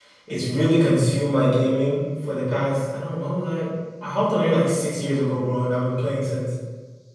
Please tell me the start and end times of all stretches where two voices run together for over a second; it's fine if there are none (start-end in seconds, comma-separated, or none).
none